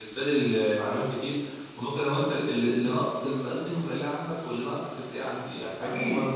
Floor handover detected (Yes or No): Yes